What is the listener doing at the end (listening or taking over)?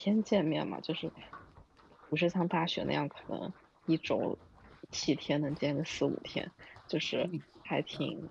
listening